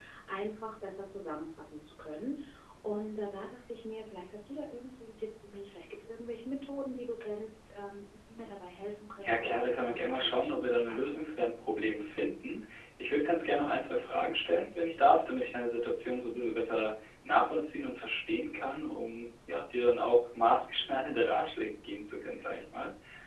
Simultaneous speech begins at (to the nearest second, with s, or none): 9 s